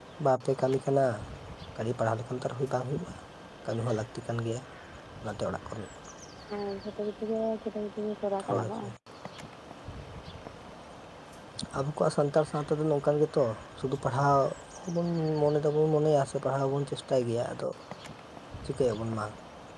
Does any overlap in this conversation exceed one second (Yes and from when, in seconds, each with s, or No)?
No